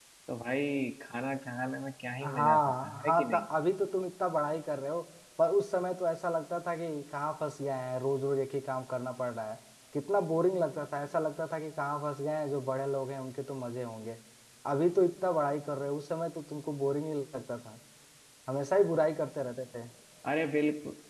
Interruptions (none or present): present